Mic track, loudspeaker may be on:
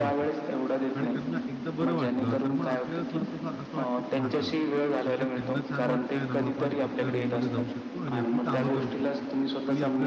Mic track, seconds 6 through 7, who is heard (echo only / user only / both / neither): both